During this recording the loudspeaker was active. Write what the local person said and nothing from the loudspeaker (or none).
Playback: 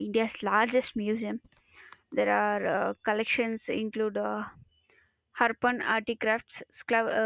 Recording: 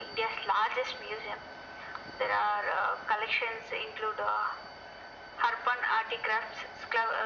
none